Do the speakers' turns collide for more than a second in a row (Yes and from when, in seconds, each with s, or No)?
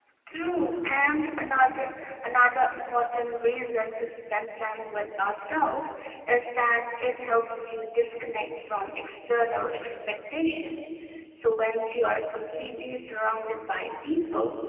No